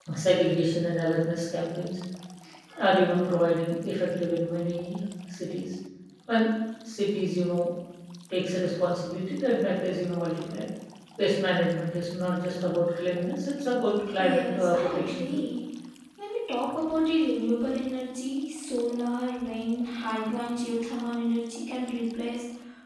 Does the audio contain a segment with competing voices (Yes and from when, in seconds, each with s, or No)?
Yes, from 14.2 s